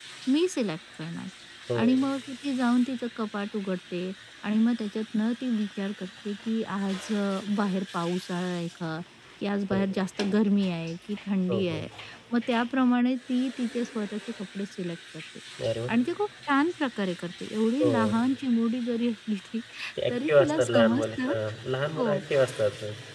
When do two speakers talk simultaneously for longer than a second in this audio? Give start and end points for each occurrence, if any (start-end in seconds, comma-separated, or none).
20.1-21.3